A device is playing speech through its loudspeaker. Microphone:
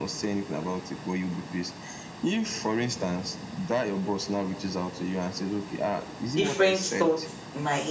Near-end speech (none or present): present